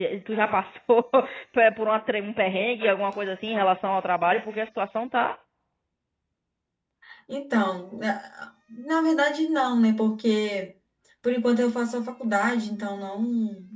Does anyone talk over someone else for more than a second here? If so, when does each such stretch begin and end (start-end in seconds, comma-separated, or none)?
none